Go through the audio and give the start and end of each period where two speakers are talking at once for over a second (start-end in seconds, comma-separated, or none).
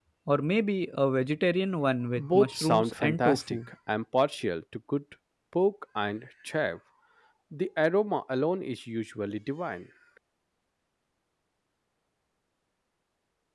2.2-3.6